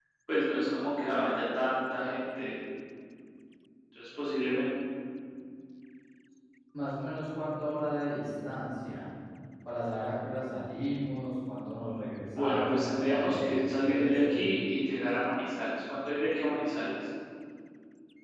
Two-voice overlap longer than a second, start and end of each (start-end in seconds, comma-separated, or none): 12.4-14.4